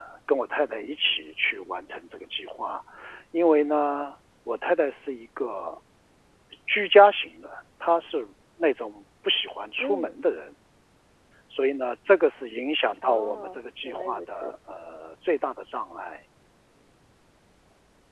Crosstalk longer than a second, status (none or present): present